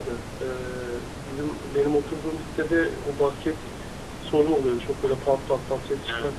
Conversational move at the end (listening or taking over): listening